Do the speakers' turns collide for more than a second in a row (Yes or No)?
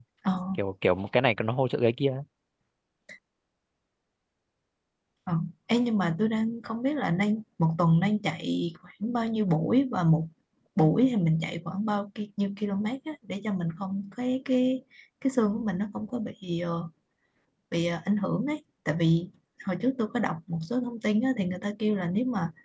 No